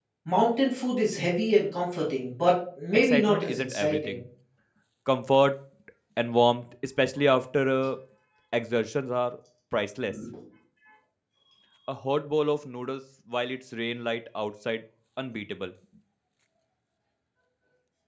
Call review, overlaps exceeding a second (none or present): present